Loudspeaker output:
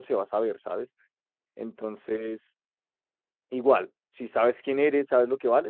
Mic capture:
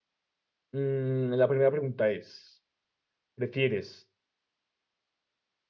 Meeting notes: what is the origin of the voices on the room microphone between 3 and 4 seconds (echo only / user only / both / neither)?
user only